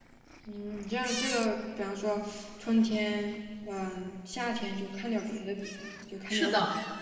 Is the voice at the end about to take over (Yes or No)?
Yes